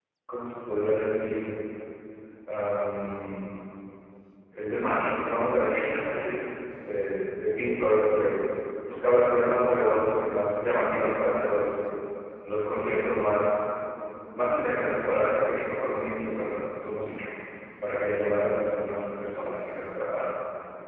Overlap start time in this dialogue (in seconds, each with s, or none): none